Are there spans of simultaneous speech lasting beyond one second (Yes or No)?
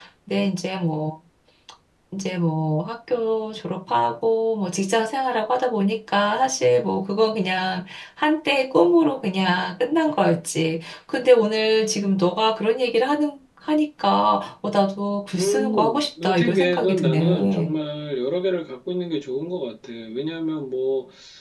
Yes